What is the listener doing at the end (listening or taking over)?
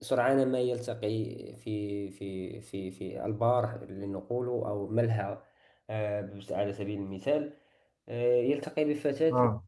listening